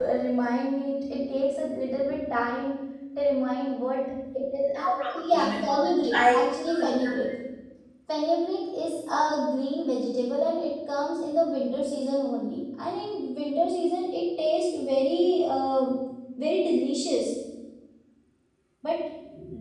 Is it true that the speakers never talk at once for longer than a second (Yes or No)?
No